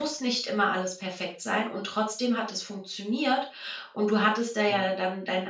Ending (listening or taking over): listening